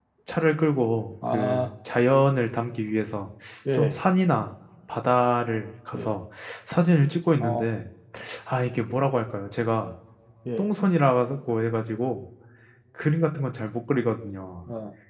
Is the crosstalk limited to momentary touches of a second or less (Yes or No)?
Yes